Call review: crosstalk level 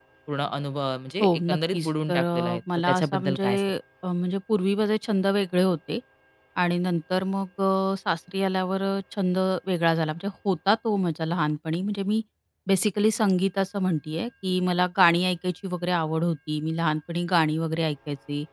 present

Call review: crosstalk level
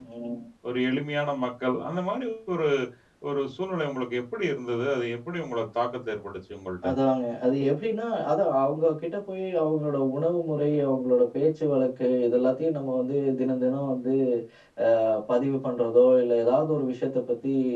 none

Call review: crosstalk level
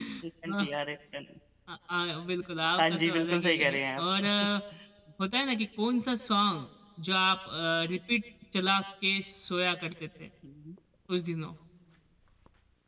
present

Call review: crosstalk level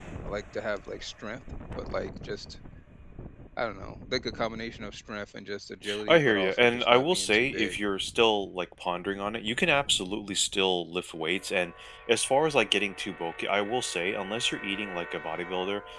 present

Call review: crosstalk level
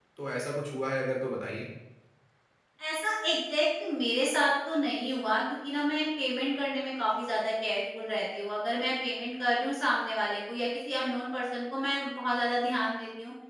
none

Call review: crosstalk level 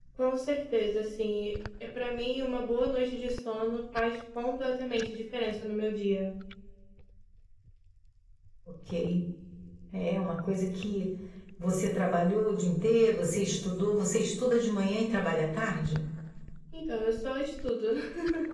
none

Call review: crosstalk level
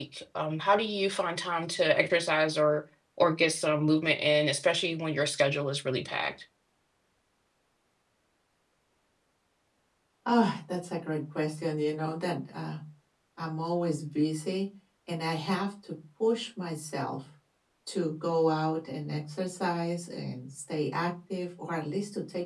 none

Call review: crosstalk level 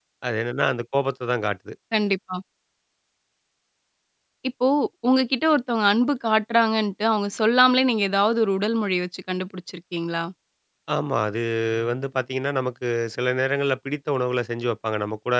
none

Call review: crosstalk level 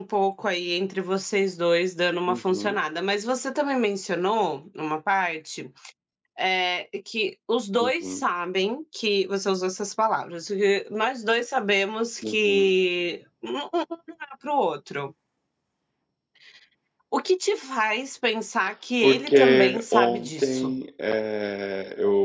present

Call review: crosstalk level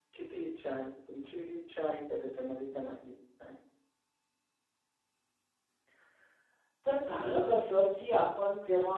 none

